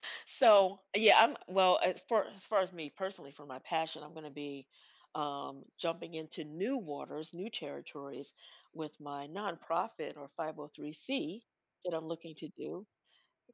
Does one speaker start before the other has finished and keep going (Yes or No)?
No